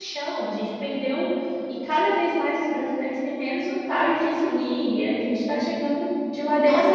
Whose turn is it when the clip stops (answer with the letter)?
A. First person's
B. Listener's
B